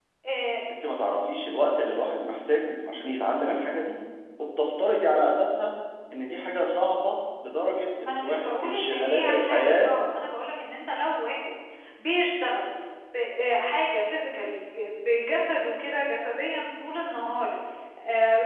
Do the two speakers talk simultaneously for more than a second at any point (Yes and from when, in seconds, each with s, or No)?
Yes, from 8.1 s